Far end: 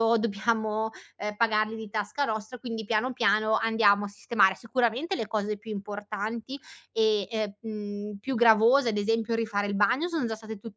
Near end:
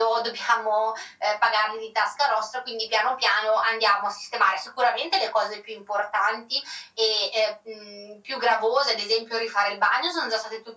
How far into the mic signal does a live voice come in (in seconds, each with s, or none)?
none